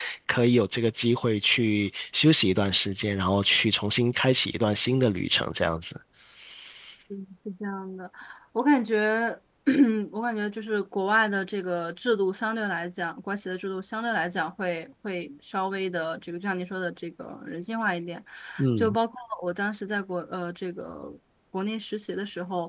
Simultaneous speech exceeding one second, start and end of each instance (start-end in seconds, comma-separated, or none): none